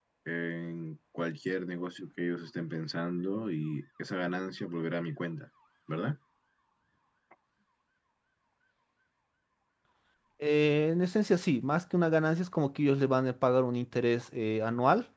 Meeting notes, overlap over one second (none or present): none